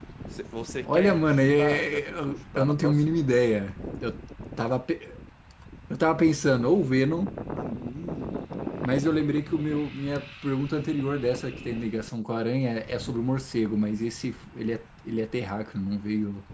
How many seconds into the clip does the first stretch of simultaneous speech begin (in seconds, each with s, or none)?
0.8 s